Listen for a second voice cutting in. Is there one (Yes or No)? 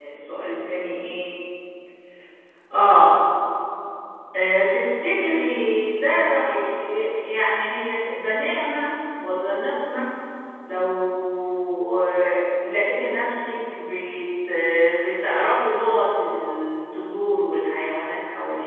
No